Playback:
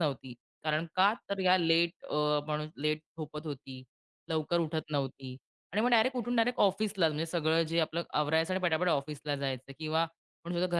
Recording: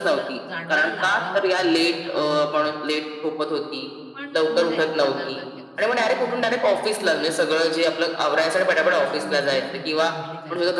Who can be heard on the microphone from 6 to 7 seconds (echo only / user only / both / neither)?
both